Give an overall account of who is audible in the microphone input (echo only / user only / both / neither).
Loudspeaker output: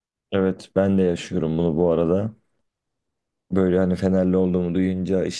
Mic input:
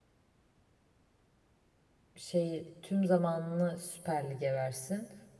user only